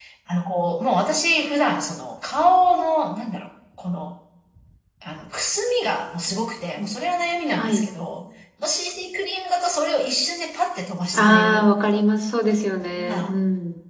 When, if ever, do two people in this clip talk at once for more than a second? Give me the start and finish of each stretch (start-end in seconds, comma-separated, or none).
none